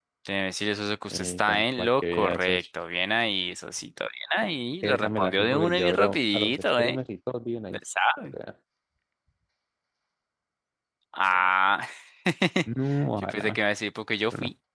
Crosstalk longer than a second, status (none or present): present